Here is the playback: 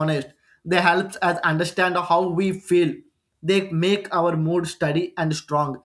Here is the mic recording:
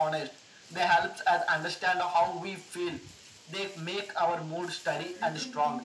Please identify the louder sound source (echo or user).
echo